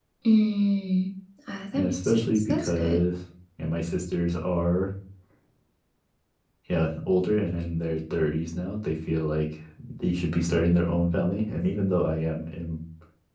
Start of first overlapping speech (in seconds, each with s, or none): 1.7 s